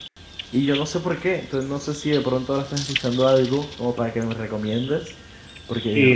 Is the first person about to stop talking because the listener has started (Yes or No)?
Yes